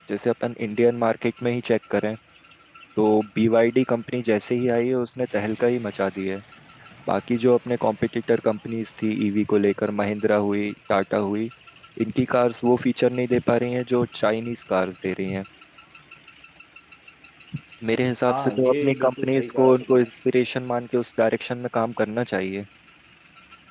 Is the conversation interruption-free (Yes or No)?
No